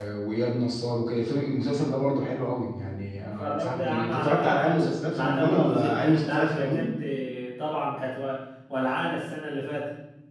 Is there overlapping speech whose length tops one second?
Yes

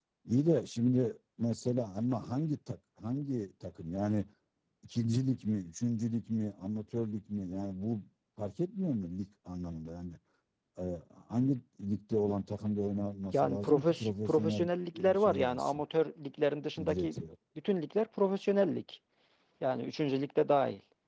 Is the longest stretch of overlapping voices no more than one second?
No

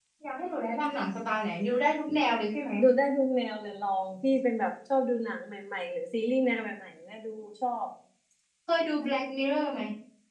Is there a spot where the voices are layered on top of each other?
No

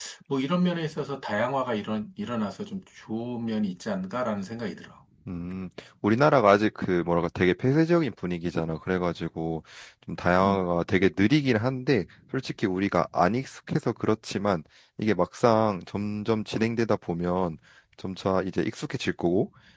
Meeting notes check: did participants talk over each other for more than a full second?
No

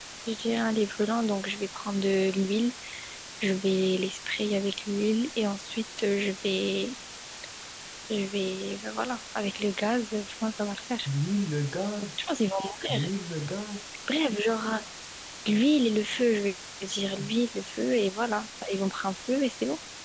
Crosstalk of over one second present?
No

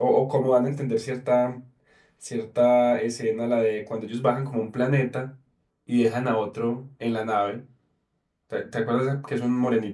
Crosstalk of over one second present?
No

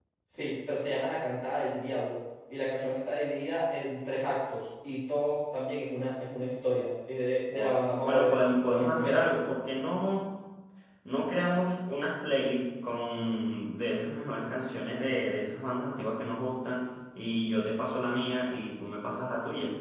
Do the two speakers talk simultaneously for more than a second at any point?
Yes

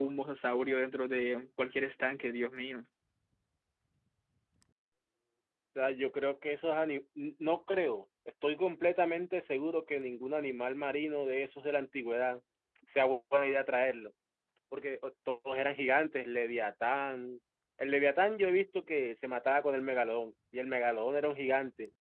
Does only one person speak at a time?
Yes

